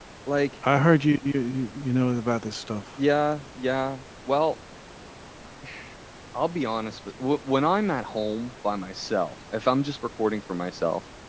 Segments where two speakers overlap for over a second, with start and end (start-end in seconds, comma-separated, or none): none